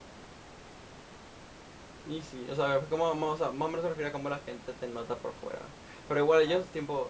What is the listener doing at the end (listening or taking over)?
listening